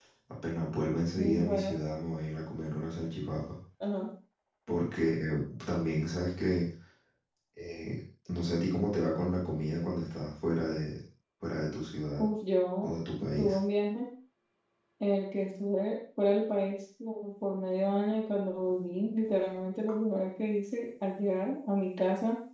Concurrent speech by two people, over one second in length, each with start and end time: none

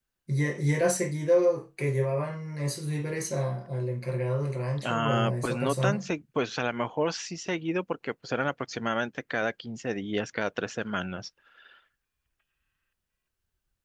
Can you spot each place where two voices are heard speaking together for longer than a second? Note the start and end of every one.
4.8-6.1

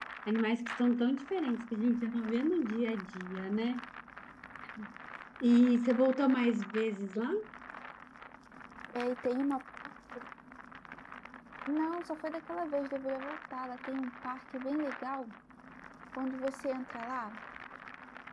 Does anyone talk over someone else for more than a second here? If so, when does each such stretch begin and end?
none

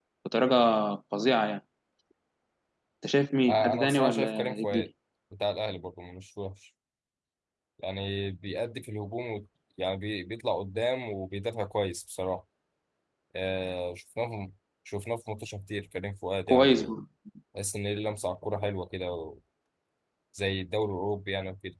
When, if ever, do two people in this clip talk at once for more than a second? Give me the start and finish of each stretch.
3.5-4.9

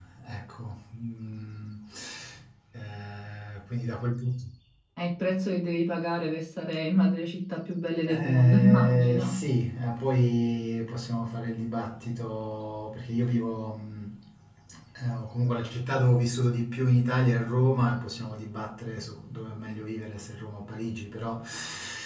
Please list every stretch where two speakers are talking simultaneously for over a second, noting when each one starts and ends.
8.1-9.4

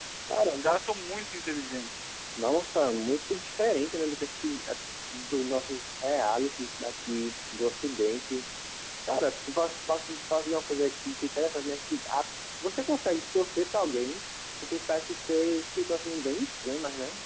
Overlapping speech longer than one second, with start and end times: none

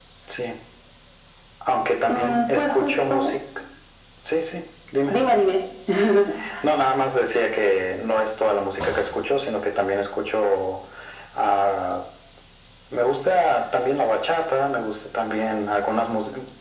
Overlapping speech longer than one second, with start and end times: 2.1-3.4

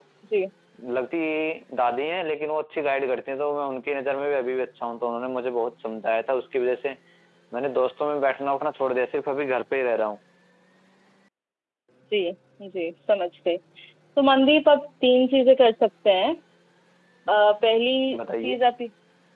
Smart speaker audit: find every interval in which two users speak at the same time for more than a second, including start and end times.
none

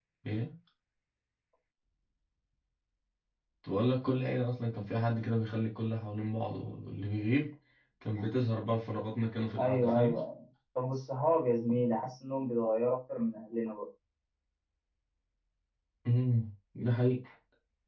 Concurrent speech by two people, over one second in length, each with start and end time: none

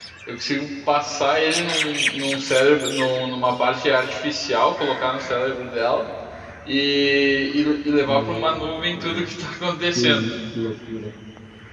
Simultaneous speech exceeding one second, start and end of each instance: 8.0-9.3

